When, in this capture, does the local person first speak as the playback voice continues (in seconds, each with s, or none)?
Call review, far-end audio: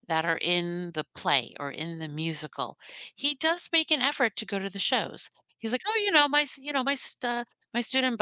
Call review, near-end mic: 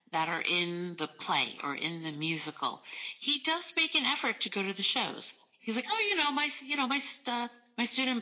none